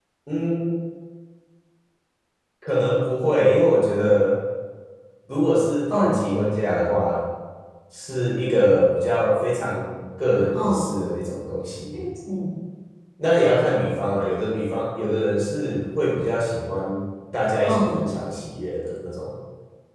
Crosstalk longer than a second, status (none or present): none